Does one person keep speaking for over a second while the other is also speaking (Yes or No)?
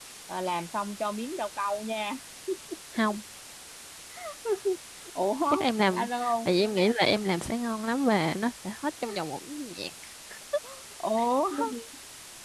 No